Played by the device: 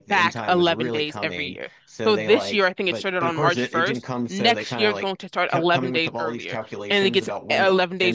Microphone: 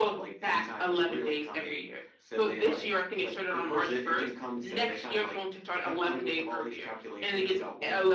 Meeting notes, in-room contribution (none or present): none